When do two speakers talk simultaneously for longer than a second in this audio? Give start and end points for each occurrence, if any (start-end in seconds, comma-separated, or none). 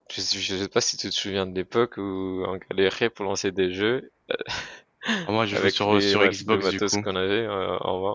5.5-7.0